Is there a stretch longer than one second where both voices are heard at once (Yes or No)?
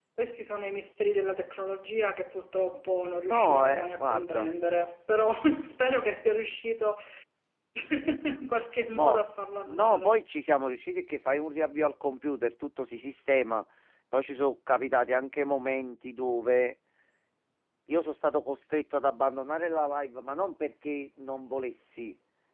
Yes